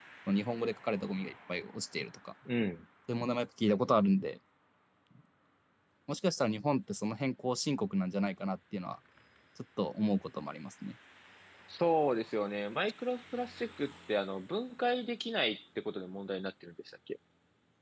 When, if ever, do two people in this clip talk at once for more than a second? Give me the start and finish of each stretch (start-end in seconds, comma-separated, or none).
none